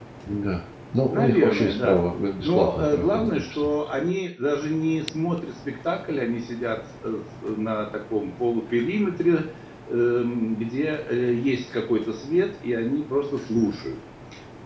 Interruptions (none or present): present